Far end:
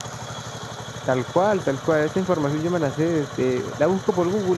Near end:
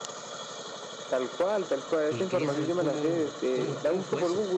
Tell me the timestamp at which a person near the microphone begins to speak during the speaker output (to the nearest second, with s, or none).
2 s